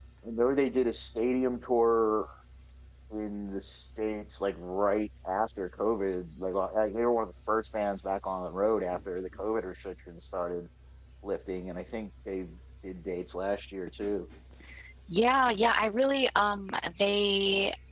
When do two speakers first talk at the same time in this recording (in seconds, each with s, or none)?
none